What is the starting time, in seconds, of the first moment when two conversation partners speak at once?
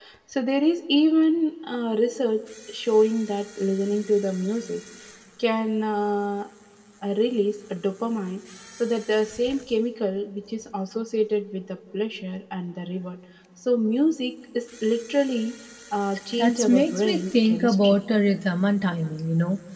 16 s

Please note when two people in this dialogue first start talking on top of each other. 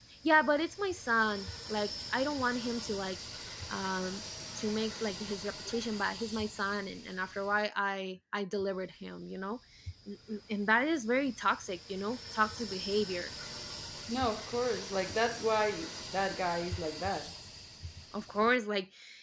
none

